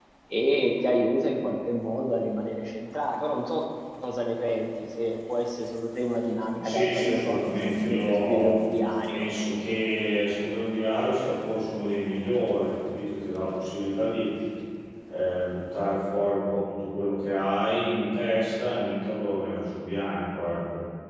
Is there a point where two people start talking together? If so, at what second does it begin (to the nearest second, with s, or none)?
7 s